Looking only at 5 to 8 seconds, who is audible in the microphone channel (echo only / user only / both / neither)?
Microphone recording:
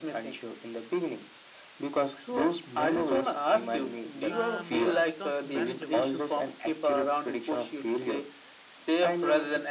both